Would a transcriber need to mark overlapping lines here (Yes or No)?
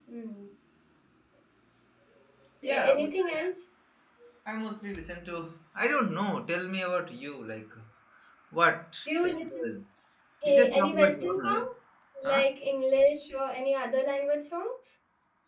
Yes